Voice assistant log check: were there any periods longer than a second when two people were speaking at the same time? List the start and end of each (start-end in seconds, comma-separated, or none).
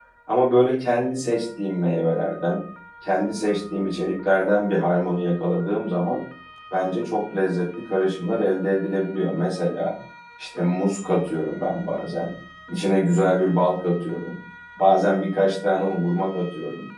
none